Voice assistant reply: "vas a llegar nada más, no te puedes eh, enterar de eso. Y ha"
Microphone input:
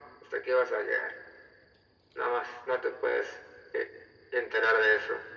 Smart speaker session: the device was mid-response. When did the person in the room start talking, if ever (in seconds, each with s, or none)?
none